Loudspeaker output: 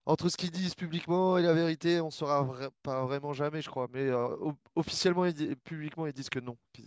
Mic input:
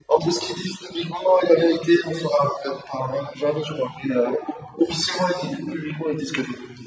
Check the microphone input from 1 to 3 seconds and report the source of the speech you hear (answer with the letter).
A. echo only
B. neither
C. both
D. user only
A